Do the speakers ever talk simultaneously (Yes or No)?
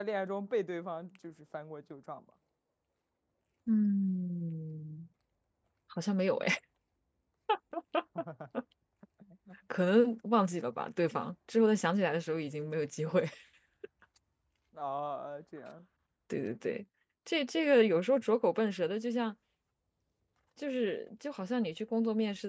No